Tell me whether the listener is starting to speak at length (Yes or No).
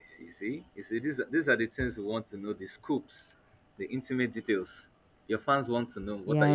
Yes